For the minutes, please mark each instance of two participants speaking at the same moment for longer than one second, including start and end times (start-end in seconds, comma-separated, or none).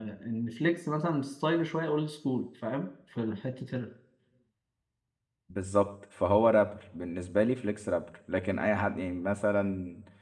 none